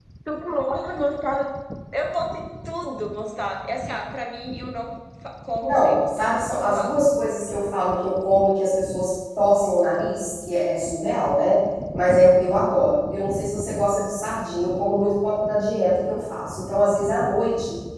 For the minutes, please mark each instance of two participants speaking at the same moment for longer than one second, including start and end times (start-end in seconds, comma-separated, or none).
5.6-6.9